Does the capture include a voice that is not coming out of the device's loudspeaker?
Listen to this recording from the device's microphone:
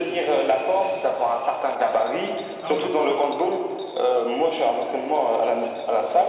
Yes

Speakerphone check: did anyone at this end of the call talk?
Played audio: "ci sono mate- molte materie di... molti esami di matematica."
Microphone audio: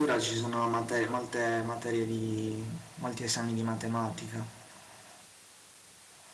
No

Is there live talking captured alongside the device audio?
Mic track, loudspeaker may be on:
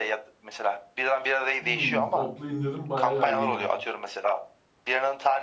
Yes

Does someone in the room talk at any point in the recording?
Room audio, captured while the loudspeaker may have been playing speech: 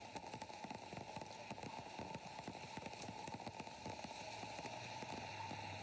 No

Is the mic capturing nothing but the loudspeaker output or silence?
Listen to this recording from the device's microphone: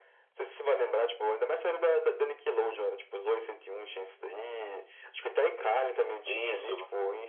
No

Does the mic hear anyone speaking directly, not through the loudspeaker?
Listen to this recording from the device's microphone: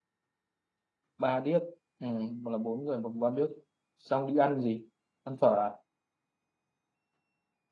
Yes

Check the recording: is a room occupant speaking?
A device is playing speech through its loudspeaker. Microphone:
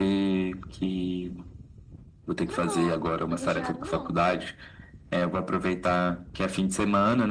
Yes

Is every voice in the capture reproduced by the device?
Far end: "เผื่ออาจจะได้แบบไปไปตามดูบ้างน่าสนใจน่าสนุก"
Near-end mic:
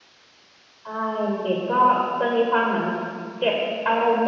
No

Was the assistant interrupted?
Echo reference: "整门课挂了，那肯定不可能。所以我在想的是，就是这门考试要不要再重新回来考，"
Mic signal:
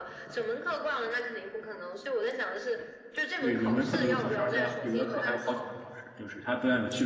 Yes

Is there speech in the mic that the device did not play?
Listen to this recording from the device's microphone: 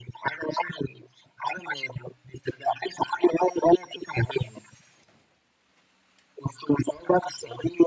No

